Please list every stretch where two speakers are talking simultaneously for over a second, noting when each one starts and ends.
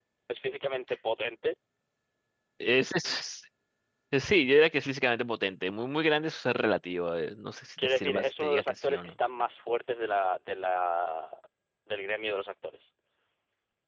7.8-9.1

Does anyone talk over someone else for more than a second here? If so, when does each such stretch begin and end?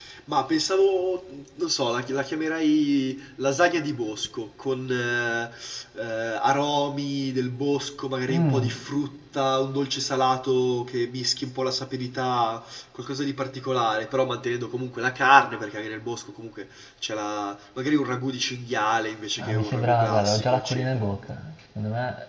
19.4-21.1

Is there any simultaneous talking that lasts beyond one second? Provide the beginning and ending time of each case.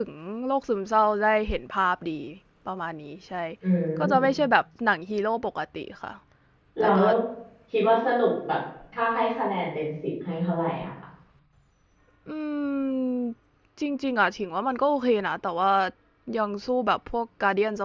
none

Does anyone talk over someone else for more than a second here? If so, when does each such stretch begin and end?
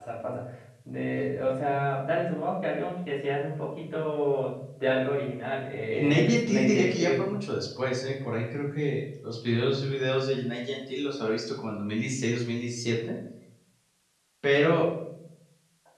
5.9-7.3

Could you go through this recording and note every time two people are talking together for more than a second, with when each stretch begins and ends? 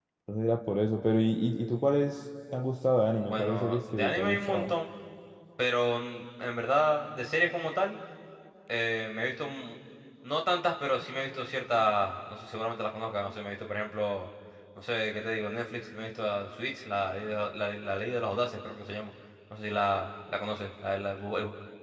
3.2-4.7

